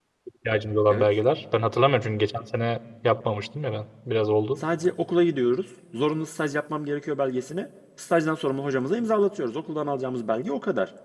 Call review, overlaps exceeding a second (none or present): none